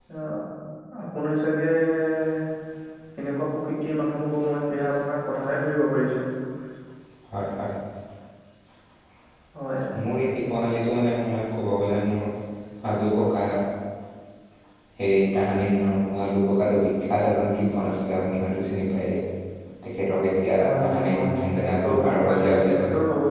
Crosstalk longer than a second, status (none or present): present